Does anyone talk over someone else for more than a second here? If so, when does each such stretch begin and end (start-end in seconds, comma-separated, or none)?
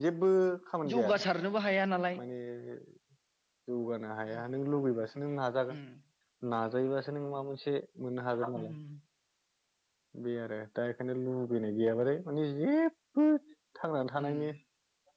none